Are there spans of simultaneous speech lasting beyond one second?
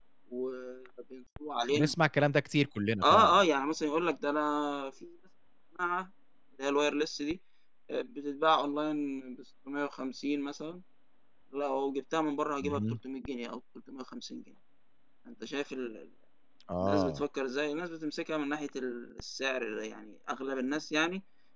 No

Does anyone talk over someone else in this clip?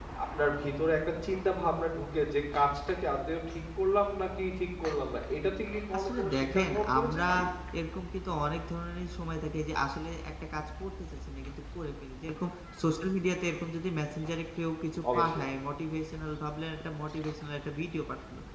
Yes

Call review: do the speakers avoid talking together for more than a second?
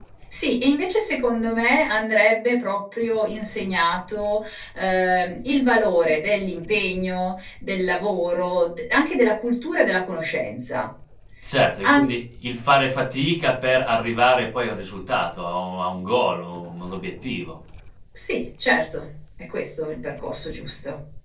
Yes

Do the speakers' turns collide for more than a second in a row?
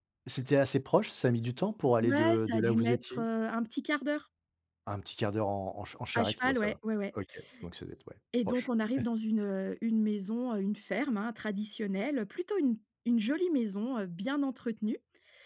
Yes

